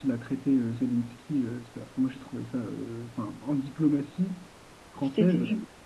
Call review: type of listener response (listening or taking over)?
listening